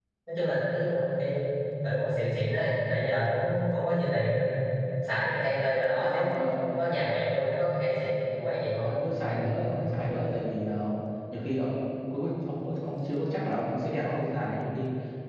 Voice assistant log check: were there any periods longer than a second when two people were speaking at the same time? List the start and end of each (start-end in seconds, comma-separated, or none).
none